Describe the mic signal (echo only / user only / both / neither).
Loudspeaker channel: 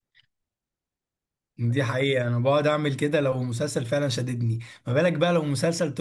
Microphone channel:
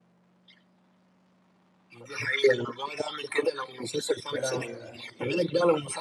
both